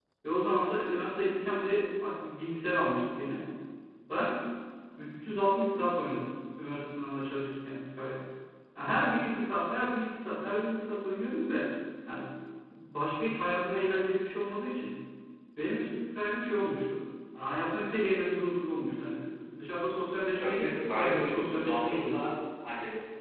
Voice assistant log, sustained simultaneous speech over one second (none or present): present